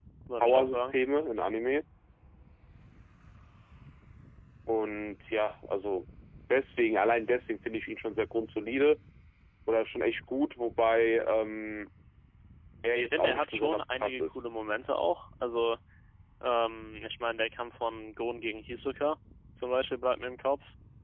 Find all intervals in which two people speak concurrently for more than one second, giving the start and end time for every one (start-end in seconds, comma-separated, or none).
12.9-14.4